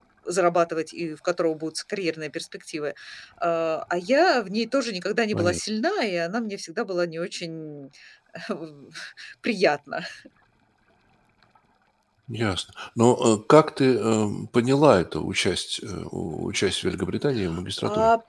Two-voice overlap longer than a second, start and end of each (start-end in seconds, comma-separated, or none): none